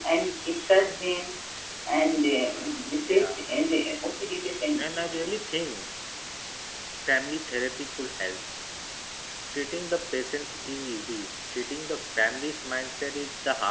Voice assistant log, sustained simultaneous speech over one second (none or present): none